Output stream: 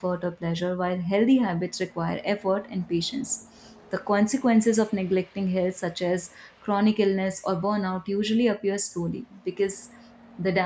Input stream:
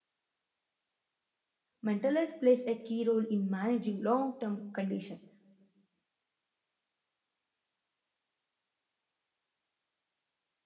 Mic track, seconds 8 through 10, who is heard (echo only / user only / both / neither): neither